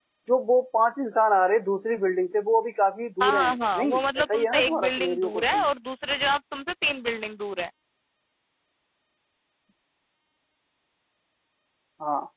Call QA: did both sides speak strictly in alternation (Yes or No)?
No